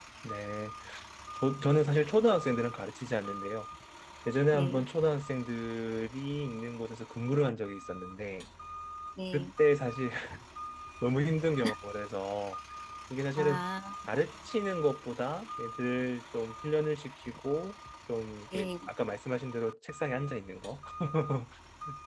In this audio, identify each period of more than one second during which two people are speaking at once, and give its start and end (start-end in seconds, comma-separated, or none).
none